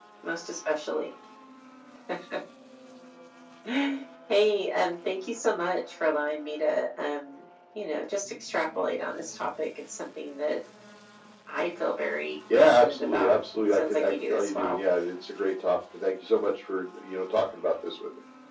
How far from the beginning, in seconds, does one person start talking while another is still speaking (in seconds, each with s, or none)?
12.5 s